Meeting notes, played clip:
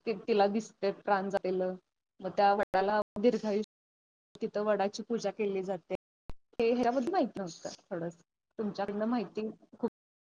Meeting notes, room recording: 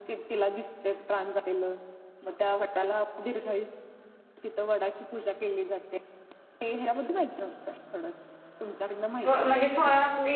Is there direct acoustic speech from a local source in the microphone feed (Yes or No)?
Yes